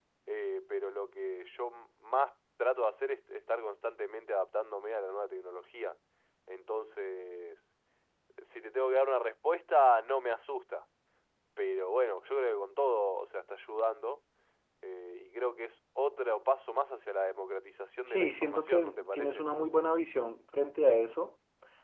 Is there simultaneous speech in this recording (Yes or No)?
Yes